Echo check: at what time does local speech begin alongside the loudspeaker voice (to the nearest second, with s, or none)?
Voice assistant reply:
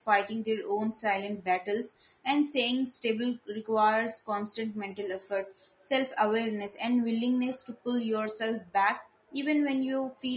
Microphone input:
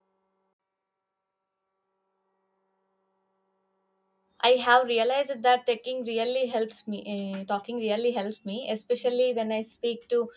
4 s